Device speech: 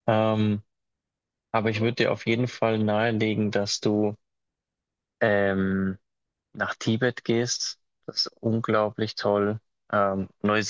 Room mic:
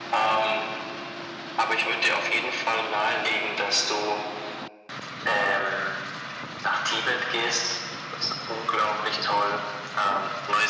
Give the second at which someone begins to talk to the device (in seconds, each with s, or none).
none